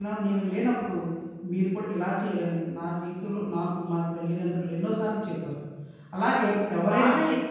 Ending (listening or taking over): taking over